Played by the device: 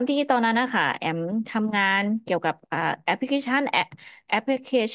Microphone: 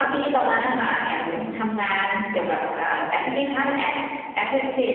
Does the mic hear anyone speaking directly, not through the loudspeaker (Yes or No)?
No